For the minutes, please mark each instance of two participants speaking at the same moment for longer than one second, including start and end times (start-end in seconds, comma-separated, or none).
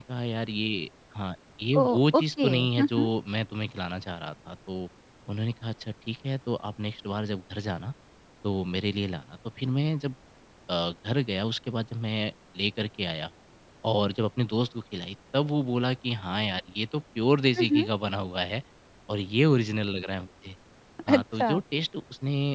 1.8-3.1